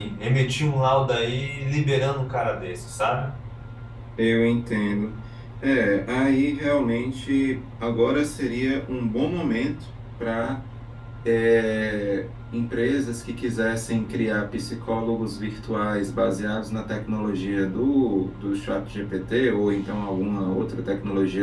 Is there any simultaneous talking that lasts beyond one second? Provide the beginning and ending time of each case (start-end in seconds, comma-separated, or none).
none